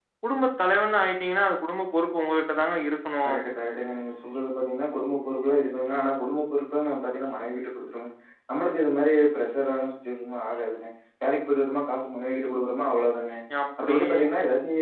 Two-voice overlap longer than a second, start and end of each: none

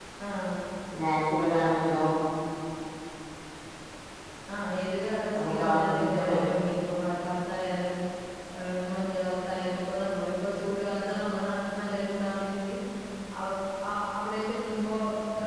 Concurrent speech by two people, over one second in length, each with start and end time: 5.3-6.6

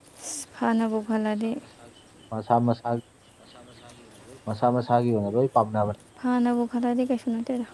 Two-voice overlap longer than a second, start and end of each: none

